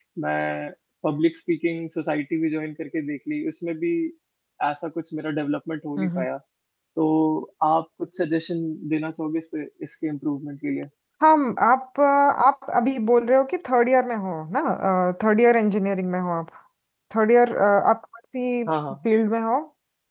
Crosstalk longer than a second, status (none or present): none